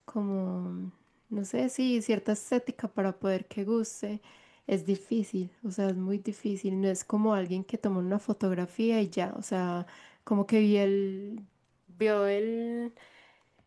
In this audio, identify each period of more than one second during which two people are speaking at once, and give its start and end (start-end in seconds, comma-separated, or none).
none